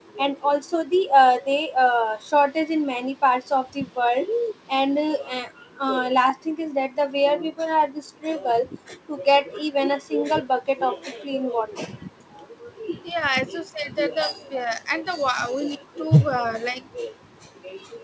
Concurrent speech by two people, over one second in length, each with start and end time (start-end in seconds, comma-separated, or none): none